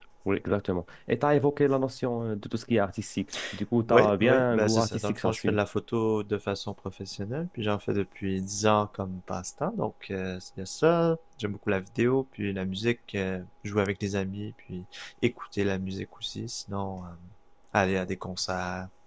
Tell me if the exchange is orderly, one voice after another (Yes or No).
No